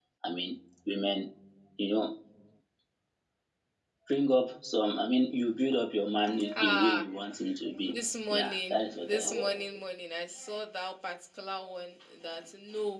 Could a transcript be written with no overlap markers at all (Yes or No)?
No